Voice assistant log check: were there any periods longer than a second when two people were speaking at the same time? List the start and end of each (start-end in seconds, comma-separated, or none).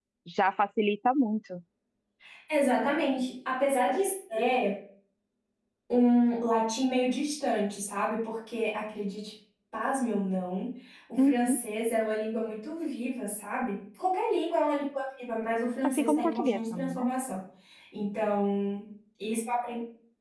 15.8-17.0